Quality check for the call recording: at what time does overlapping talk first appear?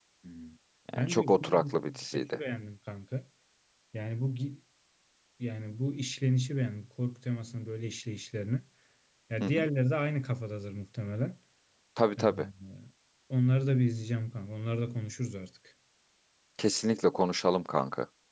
1.0 s

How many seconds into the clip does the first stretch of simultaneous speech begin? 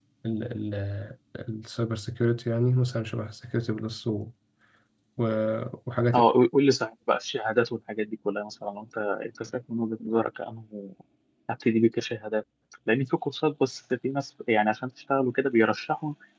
none

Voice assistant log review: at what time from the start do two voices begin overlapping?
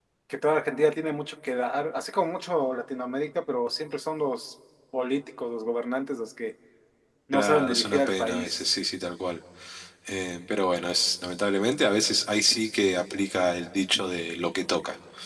7.3 s

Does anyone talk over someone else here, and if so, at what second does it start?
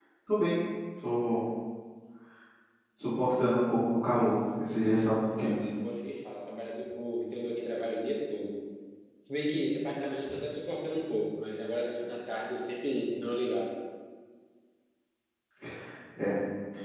none

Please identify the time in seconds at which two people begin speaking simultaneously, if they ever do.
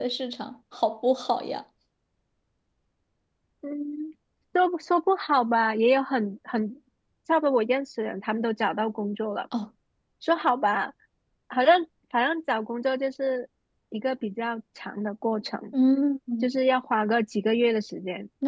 none

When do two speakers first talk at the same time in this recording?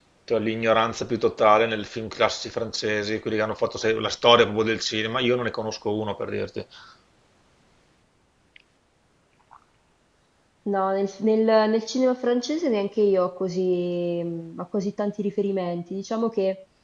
none

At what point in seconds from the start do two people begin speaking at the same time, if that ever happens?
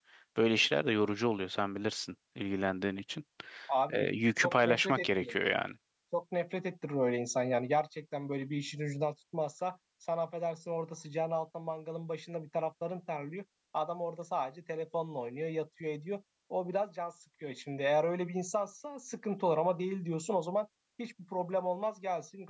3.9 s

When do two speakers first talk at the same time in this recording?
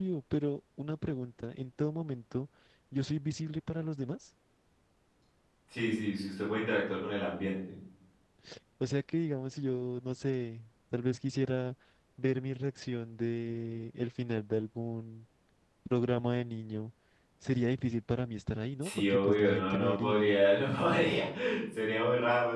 18.8 s

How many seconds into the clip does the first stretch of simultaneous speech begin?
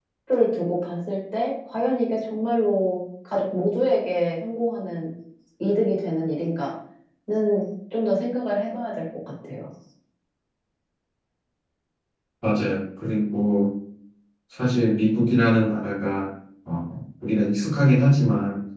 none

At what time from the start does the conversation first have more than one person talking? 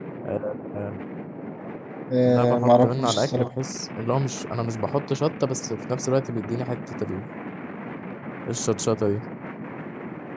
2.2 s

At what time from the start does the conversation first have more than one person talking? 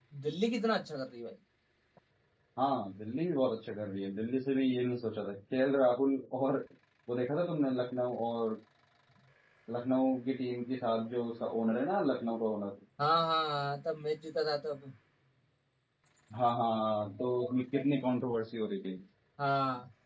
none

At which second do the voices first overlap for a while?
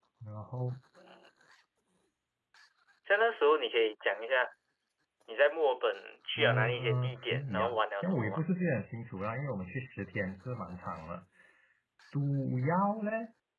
6.4 s

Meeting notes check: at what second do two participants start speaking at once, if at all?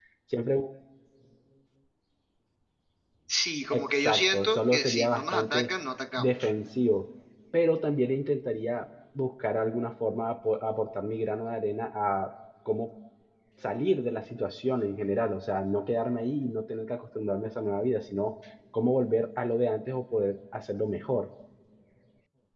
3.7 s

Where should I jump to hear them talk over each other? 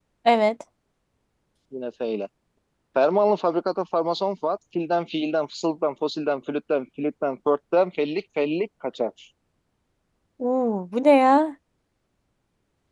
none

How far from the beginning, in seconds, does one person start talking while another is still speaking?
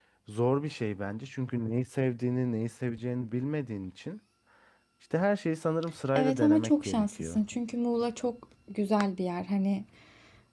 6.2 s

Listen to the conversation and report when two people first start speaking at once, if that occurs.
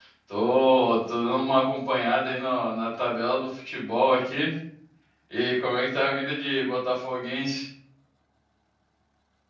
none

